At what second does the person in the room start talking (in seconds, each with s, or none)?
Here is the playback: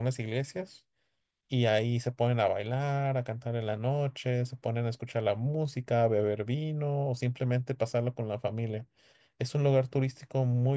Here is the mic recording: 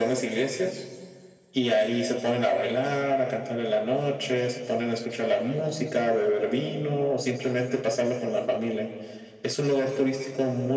none